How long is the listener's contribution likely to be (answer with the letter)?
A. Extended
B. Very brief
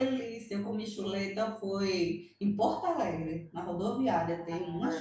A